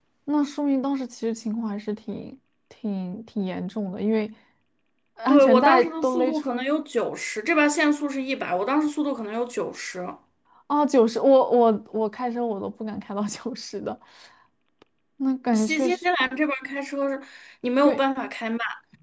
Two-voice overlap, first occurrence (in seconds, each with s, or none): 5.3 s